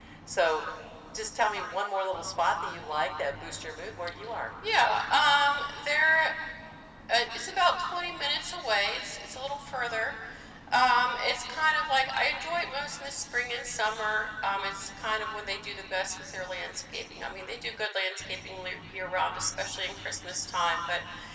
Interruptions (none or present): none